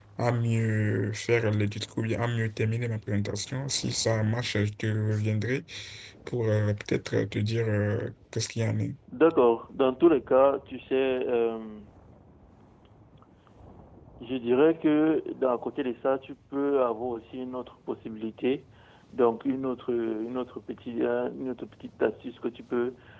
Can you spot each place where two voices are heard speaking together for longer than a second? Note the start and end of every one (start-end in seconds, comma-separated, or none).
none